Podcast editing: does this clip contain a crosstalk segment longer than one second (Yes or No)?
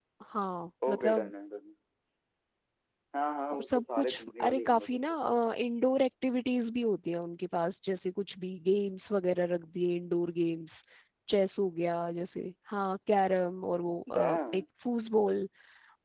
Yes